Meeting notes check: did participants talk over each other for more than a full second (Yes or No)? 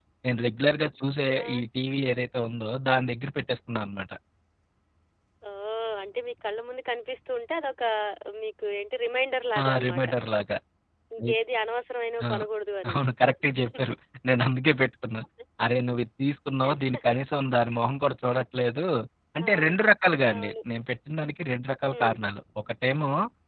No